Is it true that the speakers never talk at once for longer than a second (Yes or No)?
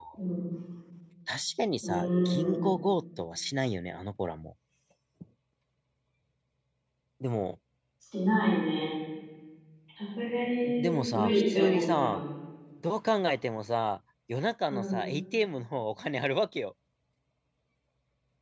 No